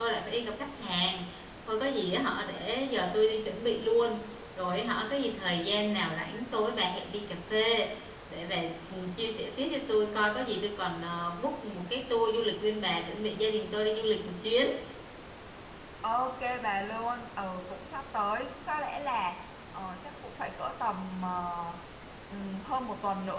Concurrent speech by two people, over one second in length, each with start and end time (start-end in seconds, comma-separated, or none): none